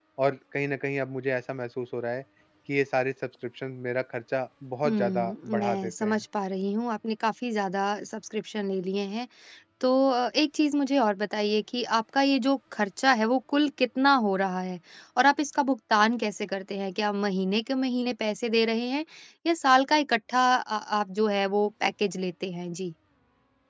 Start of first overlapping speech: 4.8 s

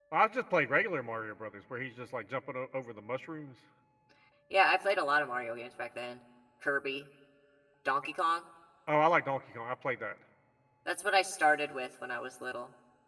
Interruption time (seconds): none

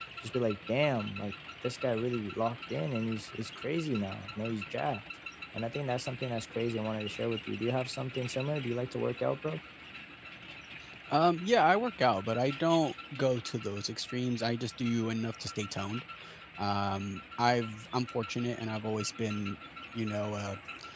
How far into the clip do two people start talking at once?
none

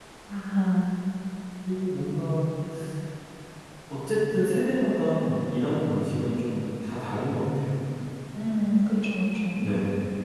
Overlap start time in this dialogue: none

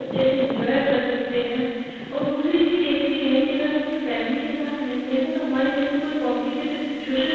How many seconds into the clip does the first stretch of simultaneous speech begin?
none

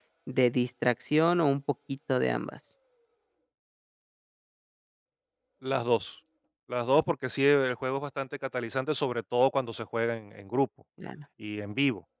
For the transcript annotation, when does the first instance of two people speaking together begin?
none

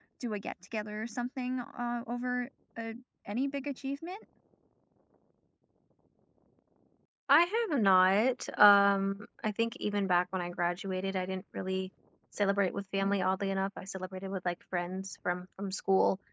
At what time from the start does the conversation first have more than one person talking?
none

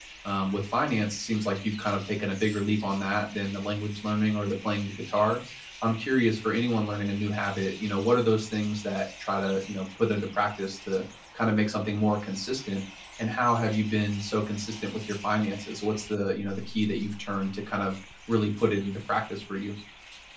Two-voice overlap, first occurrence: none

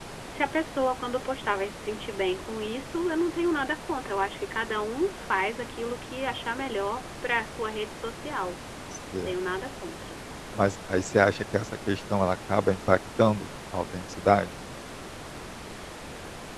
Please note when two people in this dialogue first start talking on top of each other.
none

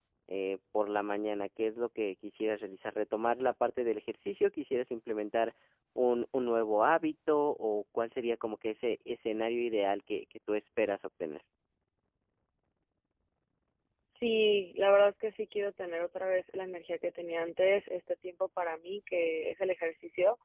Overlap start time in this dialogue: none

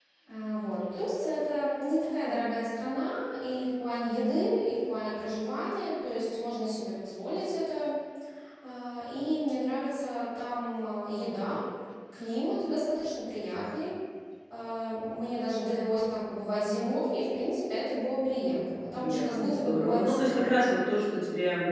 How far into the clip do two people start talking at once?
18.9 s

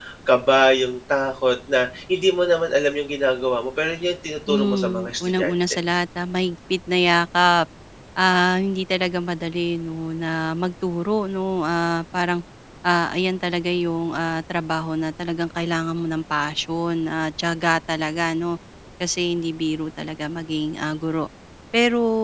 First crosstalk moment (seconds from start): 4.5 s

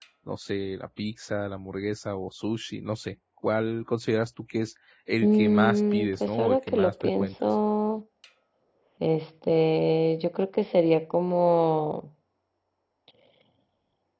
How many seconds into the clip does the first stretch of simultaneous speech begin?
5.2 s

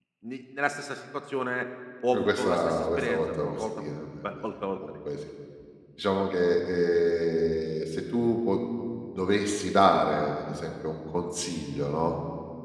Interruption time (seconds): 2.1 s

